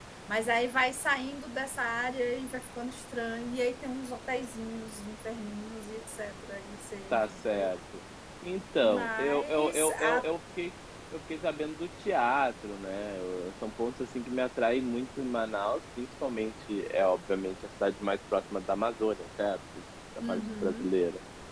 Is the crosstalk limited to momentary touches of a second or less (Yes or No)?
No